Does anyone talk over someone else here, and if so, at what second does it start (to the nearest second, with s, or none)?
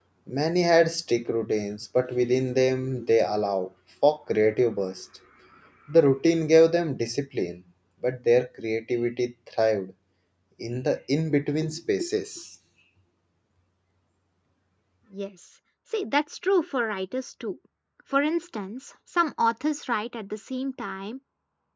none